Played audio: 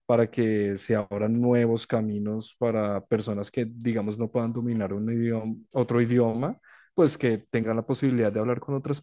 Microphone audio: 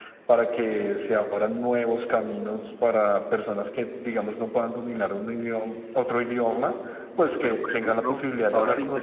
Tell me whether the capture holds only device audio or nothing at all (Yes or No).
No